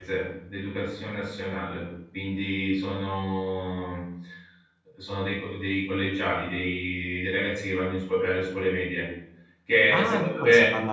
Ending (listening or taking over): taking over